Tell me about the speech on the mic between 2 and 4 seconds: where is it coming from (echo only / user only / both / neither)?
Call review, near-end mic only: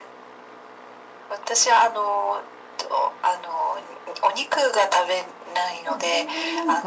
echo only